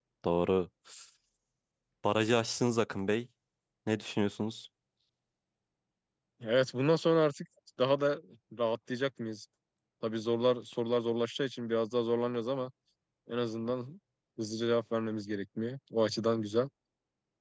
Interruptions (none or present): none